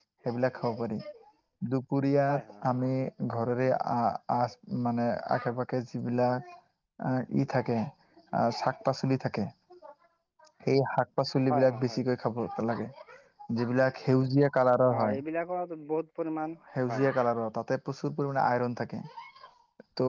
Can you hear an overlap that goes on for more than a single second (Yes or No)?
No